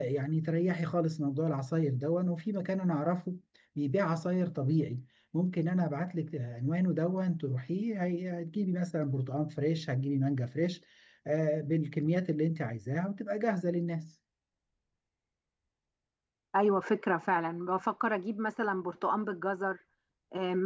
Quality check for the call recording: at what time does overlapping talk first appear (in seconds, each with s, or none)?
none